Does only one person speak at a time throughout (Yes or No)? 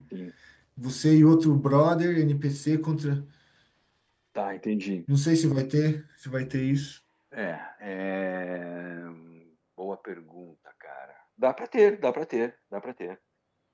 Yes